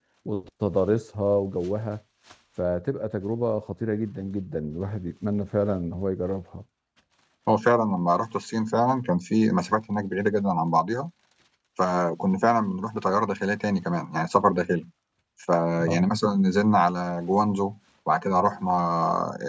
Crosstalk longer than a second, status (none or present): none